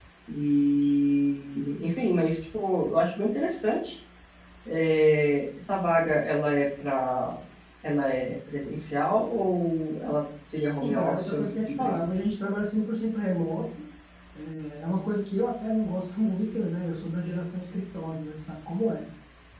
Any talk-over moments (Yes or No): Yes